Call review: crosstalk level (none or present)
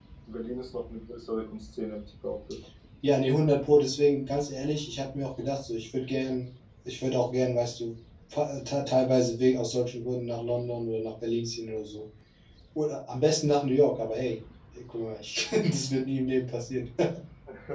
none